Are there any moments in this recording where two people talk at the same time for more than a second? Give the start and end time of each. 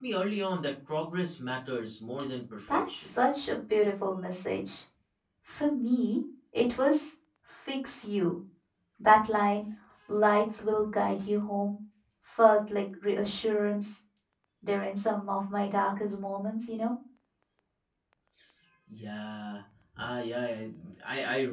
none

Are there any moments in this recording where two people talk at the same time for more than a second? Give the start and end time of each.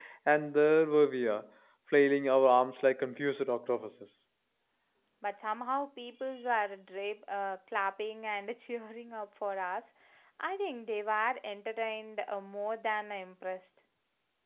none

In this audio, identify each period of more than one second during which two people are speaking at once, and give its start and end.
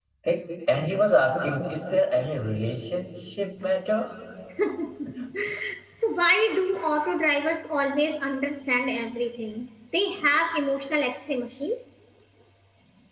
none

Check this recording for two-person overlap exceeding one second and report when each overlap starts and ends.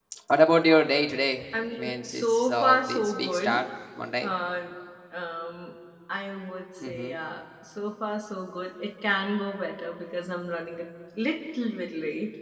1.7-3.6

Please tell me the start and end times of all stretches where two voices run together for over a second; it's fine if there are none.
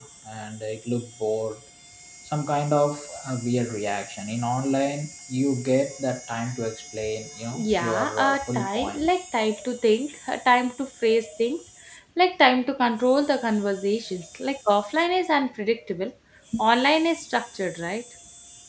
7.8-9.1

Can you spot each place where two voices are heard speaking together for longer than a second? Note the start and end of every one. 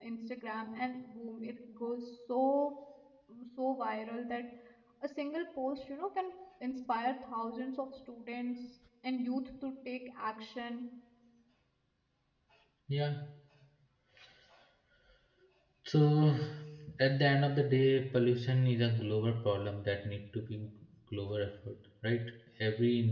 none

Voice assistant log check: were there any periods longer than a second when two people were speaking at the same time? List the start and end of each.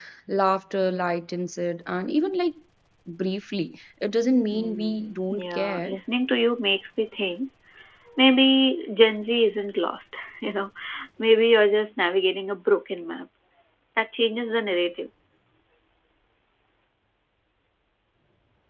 4.5-6.0

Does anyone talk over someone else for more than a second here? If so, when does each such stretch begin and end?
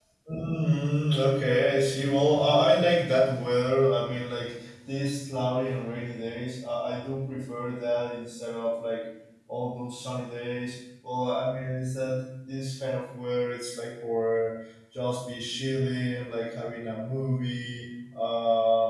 none

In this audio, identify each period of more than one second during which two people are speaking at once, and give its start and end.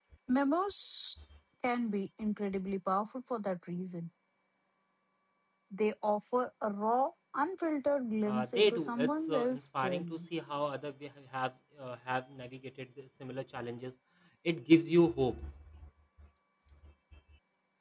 8.2-10.3

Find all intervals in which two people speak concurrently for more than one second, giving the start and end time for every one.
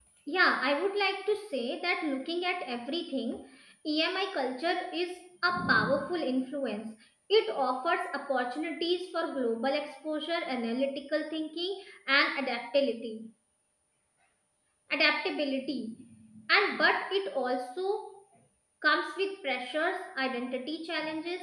none

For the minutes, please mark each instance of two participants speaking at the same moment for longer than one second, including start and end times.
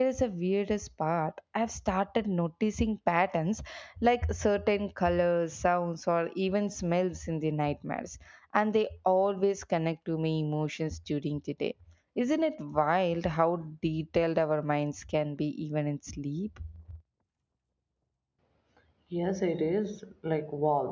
none

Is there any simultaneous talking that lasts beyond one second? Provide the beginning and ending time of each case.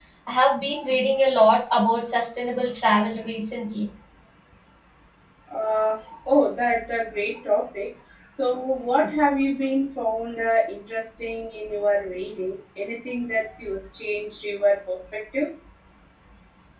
none

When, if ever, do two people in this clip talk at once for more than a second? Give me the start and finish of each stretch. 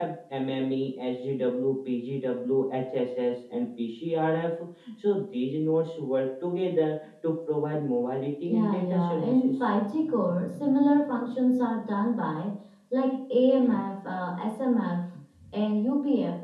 8.5-9.7

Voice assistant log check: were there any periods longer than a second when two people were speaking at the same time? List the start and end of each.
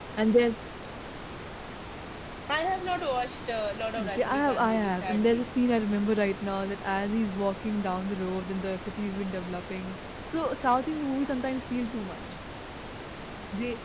4.0-5.5

